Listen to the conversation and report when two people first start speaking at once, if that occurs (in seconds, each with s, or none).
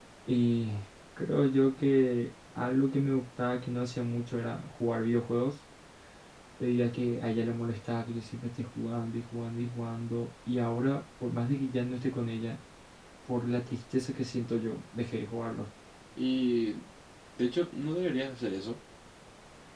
none